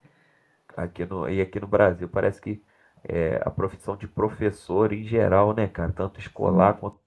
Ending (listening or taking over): listening